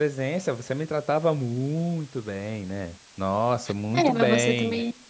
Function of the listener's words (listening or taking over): taking over